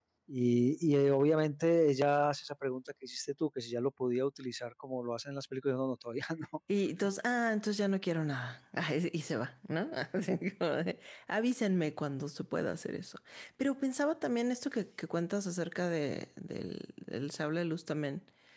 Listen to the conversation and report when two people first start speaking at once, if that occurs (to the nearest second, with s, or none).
none